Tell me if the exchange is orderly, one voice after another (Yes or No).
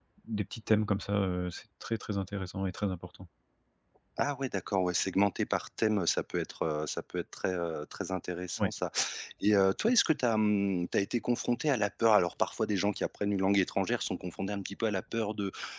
Yes